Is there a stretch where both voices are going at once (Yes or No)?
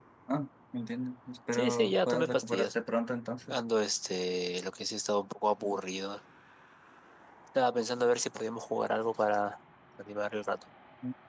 Yes